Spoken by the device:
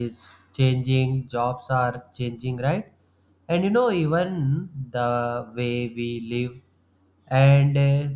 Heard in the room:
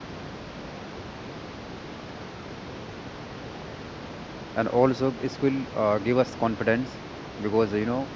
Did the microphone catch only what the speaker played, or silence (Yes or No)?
No